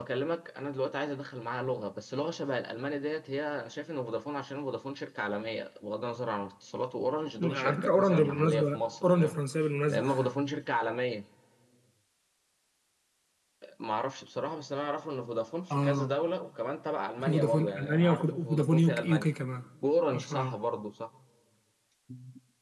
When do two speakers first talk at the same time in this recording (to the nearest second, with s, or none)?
7 s